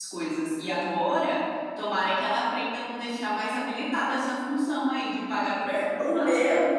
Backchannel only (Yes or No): No